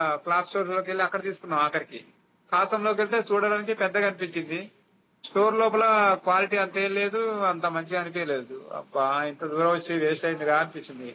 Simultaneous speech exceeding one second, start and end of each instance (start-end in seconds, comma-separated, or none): none